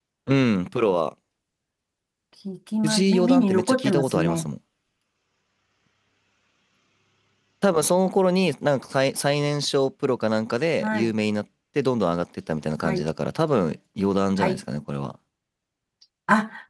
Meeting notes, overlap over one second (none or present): present